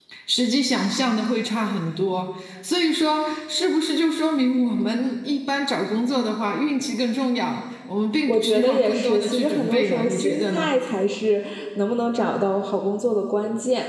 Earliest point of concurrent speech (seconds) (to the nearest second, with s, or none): 8 s